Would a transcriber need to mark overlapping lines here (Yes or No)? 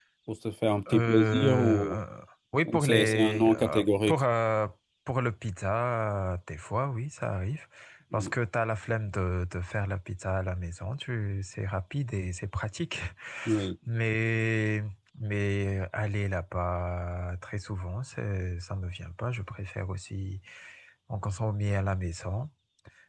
Yes